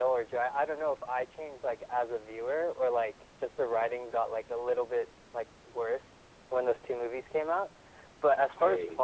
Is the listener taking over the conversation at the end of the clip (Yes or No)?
No